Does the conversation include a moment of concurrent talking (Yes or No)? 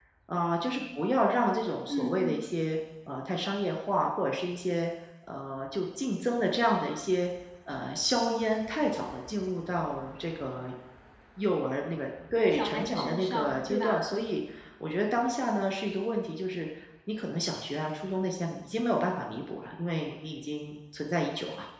Yes